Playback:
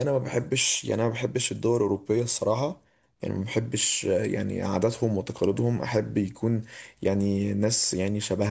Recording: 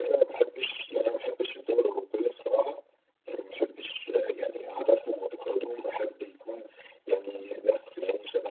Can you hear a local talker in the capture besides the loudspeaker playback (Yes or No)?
No